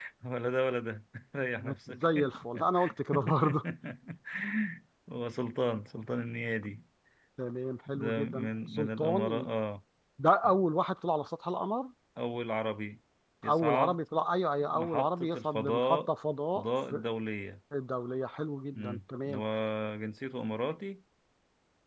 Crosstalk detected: Yes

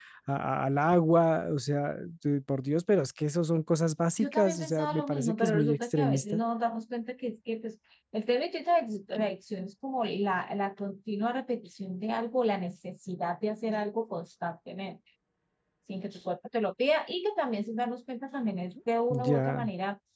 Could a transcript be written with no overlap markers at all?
No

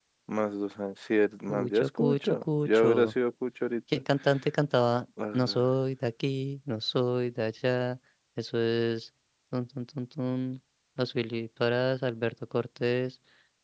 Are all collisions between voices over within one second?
No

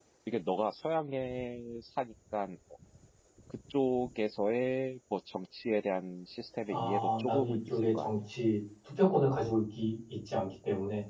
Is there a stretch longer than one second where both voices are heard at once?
Yes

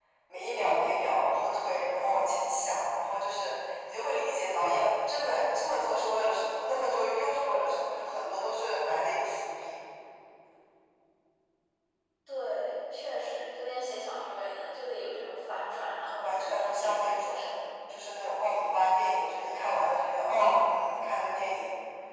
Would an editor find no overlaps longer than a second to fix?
No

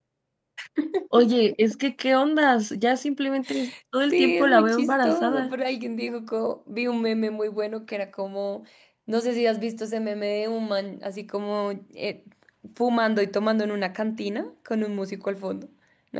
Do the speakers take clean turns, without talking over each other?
No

